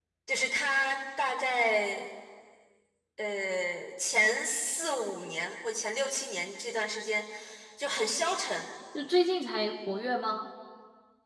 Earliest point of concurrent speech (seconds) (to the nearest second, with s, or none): none